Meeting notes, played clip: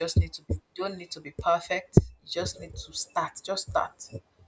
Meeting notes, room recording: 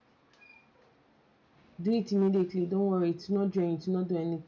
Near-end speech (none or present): present